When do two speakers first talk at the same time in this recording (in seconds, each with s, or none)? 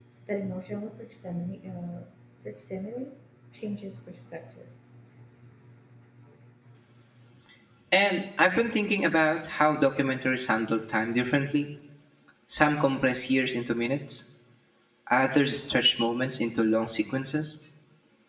none